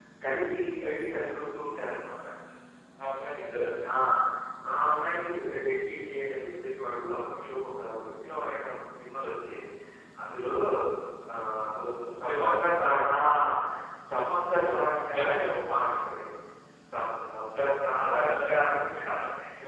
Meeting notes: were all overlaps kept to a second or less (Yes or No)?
No